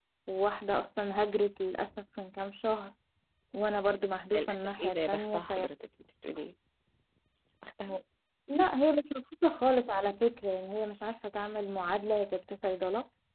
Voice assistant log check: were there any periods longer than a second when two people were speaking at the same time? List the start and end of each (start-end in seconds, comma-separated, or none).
4.3-5.7